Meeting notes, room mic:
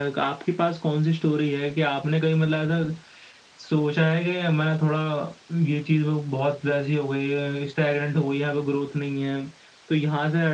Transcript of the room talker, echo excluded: none

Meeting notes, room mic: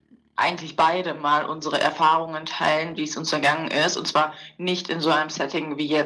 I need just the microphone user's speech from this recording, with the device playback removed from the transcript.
none

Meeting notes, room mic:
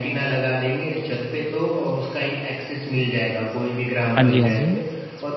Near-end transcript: हाँ जी, हाँ जी,

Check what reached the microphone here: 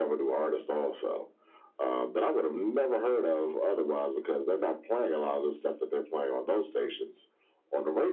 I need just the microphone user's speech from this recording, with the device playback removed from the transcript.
none

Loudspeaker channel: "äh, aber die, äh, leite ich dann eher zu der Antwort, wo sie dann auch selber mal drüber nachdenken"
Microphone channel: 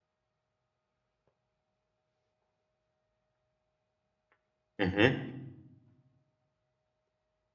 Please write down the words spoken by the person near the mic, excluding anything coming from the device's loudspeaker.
mhm.

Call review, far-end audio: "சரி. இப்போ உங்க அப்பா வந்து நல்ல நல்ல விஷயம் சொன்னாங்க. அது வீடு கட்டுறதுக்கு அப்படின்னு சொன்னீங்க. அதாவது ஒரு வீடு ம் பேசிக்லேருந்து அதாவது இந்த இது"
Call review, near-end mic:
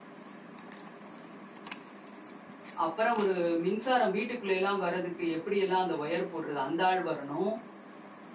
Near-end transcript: அப்புறம் ஒரு மின்சாரம் வீட்டுக்குள்ளேலாம் வரதுக்கு எப்படியெல்லாம் அந்த ஒயர் போடுறது அந்த ஆள் வரணும்.

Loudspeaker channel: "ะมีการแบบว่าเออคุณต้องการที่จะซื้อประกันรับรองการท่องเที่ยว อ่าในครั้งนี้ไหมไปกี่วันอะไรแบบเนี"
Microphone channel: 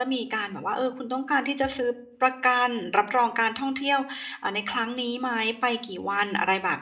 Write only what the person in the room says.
none

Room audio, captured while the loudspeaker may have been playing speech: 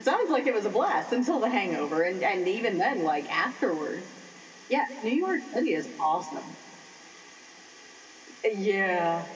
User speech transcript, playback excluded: none

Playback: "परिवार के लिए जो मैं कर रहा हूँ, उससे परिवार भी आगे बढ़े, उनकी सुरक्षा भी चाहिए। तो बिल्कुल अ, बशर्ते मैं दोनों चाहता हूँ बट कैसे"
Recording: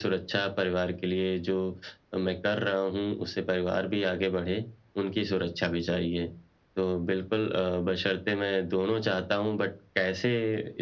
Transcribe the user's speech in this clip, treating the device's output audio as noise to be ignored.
none

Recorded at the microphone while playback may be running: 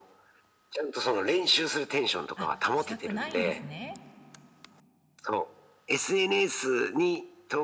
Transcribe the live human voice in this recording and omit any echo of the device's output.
あ、したくないんですね。

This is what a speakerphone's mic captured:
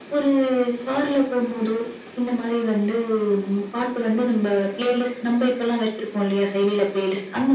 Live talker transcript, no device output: none

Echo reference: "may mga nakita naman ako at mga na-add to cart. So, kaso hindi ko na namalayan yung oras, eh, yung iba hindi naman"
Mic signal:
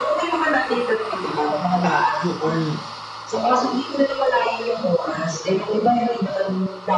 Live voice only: ah, yoong

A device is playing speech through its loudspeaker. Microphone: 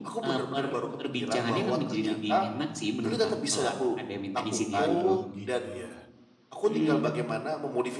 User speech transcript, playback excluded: Oh gitu ya.

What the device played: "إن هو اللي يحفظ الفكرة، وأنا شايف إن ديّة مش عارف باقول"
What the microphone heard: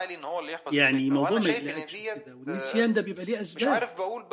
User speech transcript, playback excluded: يعني موضوع ما يقلقكش وكده، والنسيان ده بيبقى ليه أسباب.

